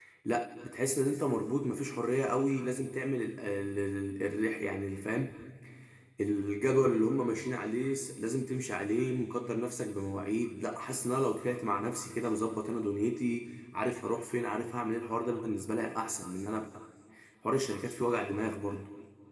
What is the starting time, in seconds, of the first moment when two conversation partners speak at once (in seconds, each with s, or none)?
none